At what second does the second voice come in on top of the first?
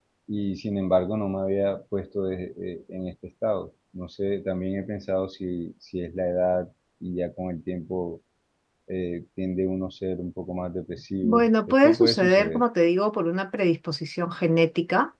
11.2 s

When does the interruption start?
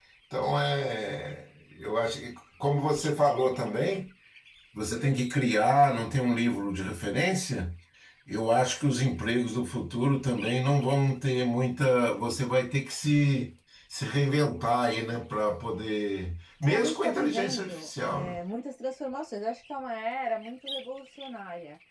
16.6 s

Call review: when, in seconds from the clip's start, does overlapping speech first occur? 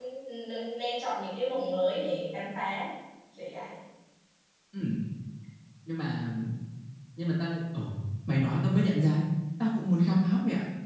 none

